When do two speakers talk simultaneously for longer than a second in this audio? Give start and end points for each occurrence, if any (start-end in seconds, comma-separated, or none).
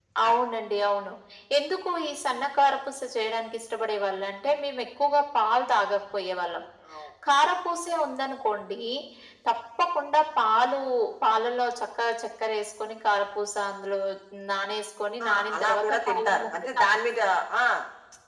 15.3-16.8